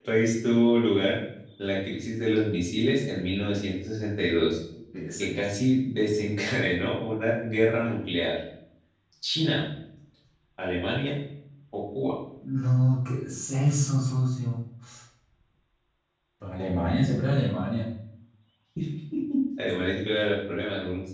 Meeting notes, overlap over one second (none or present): none